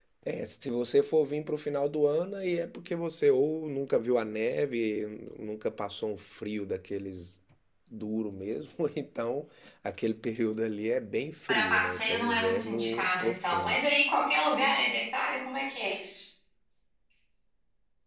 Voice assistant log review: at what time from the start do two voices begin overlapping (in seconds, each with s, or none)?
11.5 s